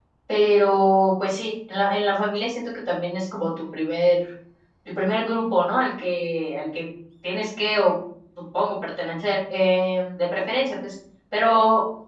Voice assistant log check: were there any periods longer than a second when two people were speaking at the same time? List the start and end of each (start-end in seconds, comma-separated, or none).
none